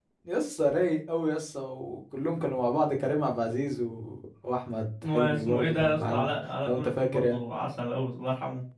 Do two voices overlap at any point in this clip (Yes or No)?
Yes